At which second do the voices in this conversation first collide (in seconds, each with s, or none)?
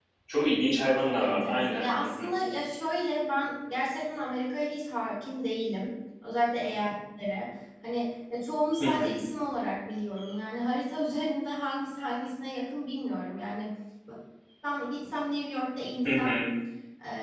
1.0 s